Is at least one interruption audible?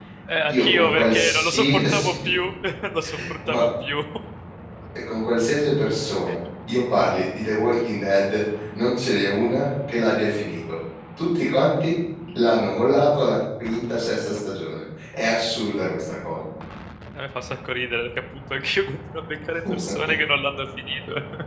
Yes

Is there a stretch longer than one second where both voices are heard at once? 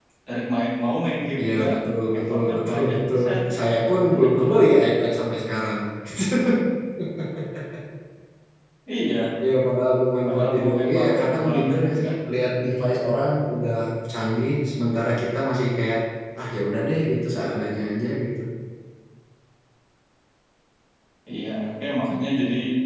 Yes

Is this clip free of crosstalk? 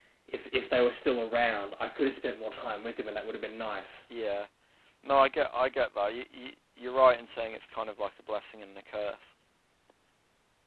Yes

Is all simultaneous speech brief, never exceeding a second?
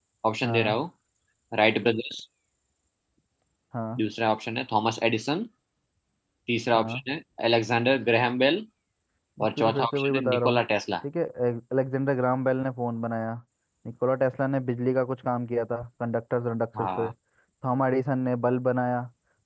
No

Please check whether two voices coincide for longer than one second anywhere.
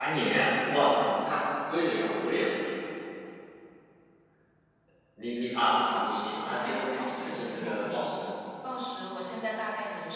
Yes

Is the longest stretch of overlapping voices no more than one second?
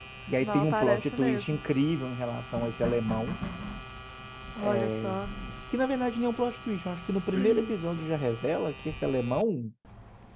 No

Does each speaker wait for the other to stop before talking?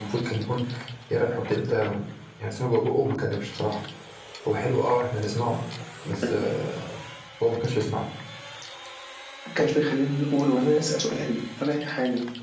Yes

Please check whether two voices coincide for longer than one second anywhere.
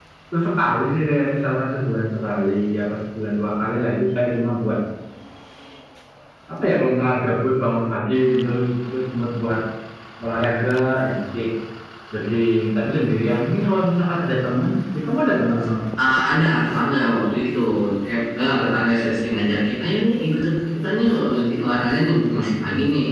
No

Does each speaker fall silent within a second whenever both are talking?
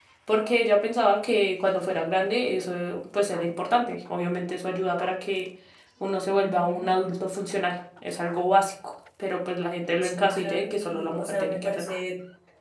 No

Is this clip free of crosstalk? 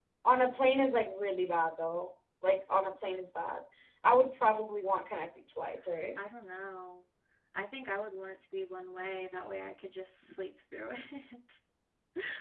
Yes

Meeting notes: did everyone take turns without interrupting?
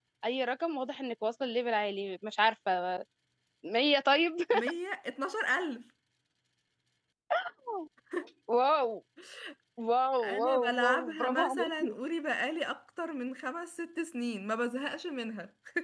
No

